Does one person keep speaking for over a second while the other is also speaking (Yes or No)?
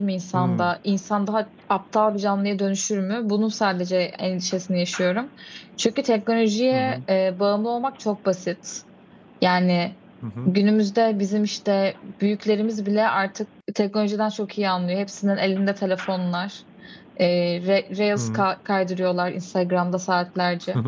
No